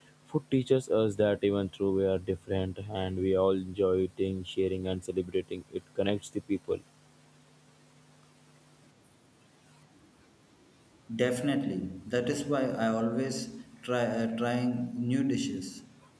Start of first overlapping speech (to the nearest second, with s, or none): none